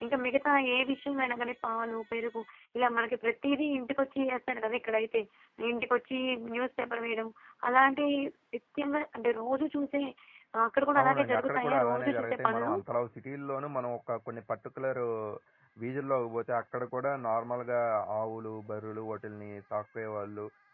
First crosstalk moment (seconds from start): 11.0 s

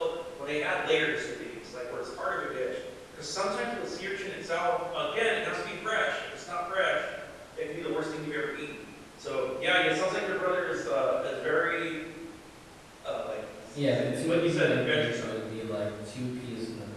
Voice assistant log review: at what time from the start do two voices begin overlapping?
13.7 s

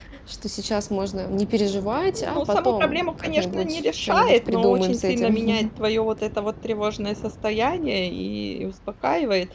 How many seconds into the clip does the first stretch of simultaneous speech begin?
2.1 s

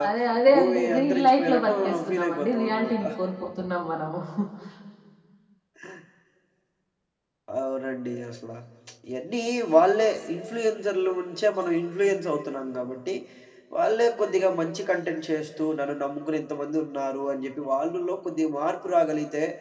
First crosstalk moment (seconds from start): 0.5 s

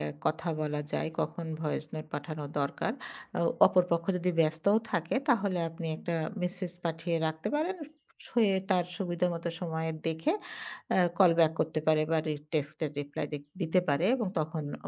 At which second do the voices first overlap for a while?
none

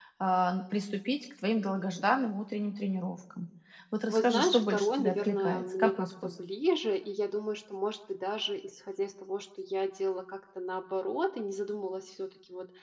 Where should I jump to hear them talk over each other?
4.1 s

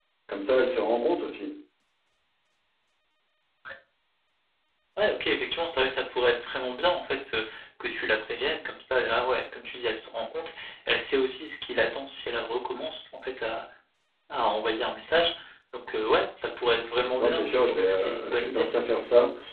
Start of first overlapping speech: 17.2 s

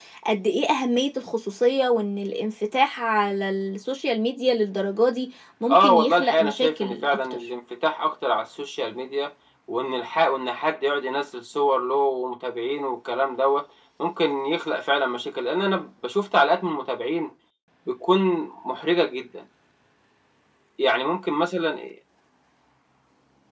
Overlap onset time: 5.7 s

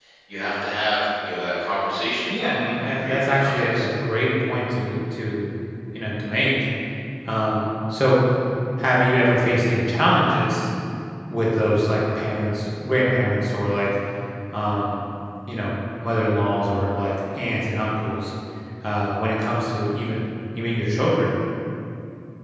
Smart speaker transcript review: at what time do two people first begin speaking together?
2.3 s

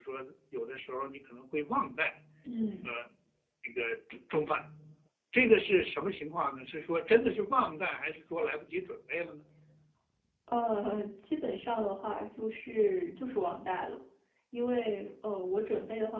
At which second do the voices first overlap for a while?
none

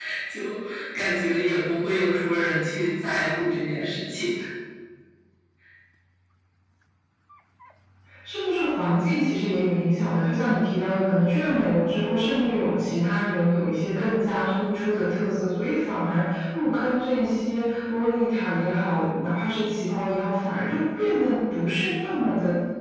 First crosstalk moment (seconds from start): none

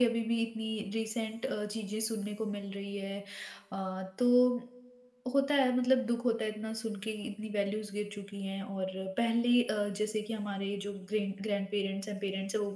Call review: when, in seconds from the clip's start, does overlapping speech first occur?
none

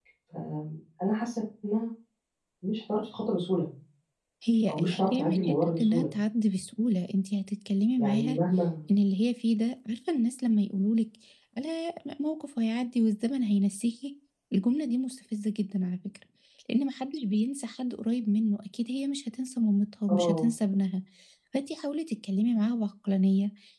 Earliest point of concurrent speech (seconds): 4.7 s

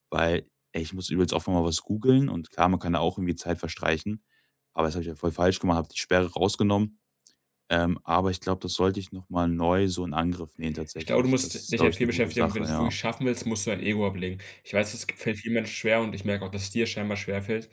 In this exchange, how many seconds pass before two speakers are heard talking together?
11.0 s

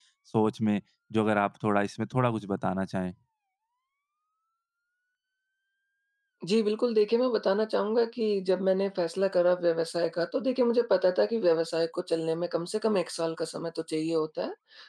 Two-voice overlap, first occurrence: none

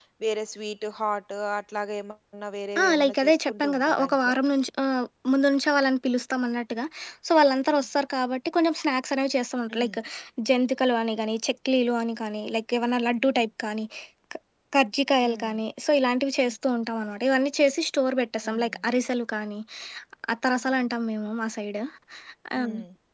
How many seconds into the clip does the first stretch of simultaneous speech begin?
2.8 s

